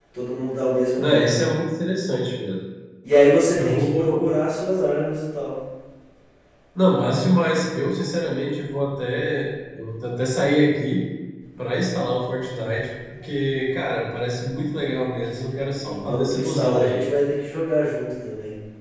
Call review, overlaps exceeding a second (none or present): present